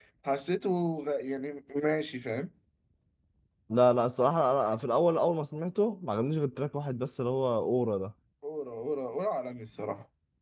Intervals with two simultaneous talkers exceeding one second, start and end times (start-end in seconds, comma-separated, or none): none